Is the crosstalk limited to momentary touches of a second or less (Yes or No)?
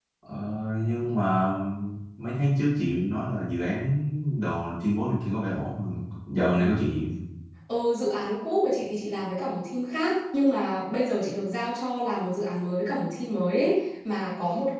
Yes